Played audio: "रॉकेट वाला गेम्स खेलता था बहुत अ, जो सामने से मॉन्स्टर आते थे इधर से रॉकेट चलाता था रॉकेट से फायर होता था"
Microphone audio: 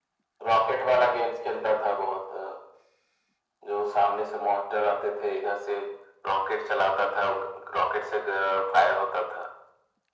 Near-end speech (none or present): none